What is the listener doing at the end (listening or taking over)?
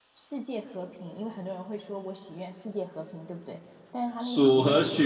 taking over